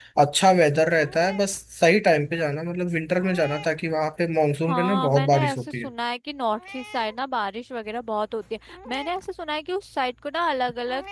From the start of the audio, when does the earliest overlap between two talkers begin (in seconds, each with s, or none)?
4.7 s